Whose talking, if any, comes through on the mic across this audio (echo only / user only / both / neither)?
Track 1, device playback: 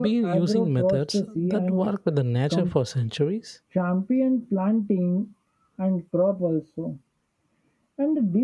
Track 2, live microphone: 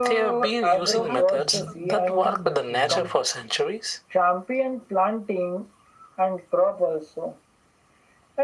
both